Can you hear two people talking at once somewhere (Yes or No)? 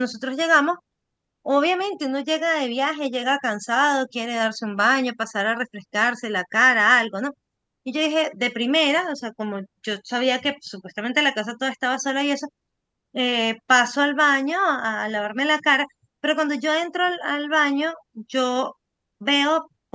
No